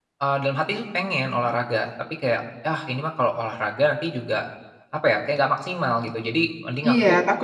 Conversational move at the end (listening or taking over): taking over